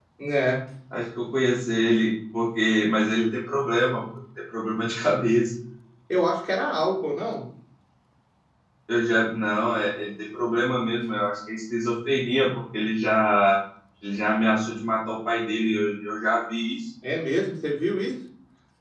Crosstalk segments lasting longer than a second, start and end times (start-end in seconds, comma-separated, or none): none